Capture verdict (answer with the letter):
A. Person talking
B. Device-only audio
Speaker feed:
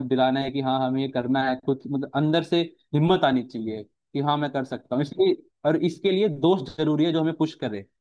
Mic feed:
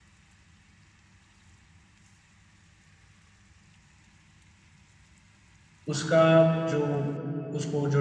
A